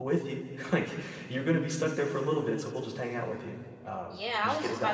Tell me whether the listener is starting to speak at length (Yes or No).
Yes